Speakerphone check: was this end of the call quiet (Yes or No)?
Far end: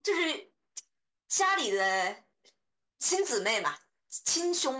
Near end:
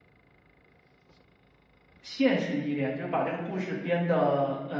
No